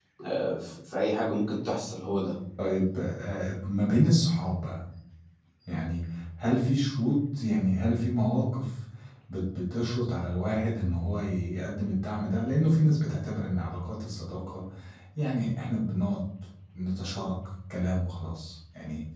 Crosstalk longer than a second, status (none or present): none